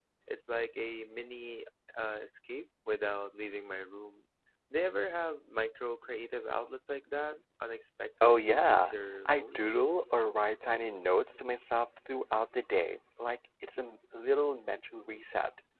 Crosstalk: present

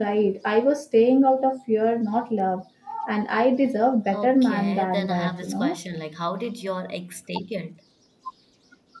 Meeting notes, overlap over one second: present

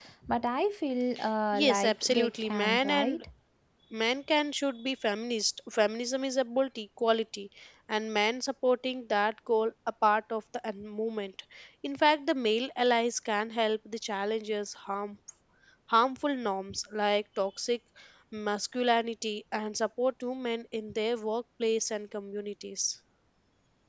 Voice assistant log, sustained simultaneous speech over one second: present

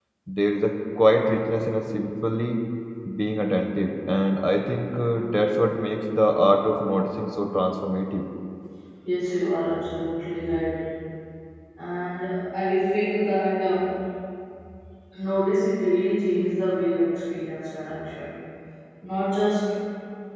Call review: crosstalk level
none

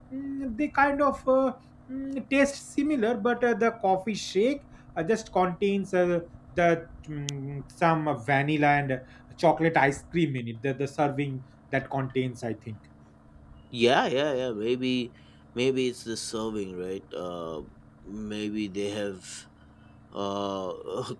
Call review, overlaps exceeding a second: none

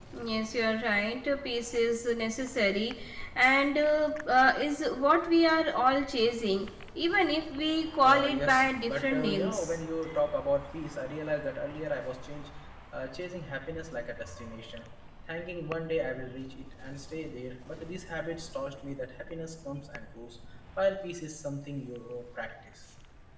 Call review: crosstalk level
present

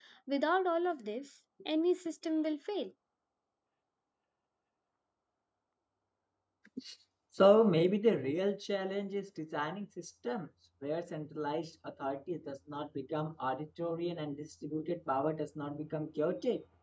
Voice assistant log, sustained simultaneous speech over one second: none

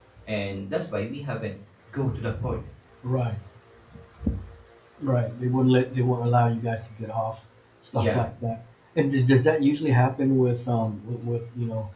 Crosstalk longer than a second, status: none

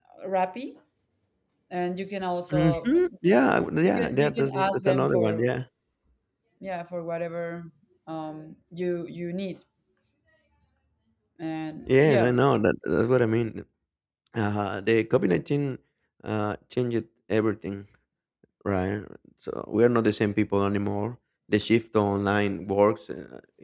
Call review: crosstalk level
present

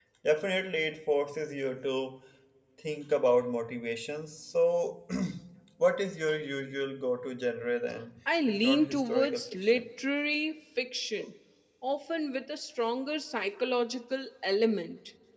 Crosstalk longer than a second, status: present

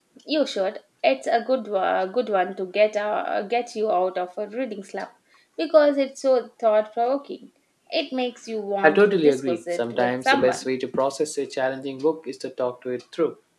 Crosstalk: present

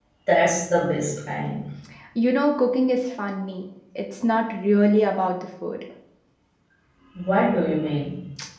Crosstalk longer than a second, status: none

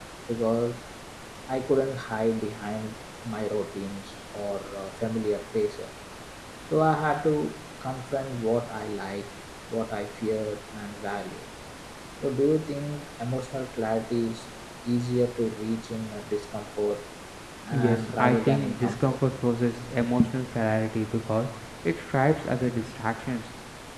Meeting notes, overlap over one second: present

